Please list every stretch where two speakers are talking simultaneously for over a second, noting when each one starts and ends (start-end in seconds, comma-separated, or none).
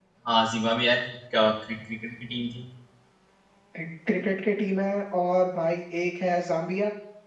none